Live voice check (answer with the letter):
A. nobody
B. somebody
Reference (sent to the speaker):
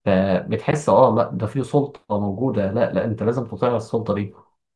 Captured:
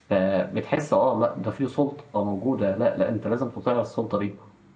A